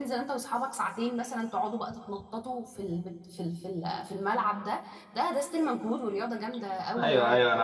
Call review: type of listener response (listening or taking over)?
taking over